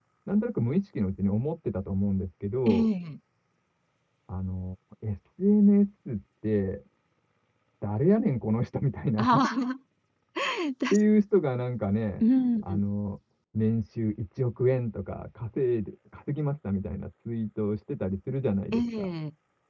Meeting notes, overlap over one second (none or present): none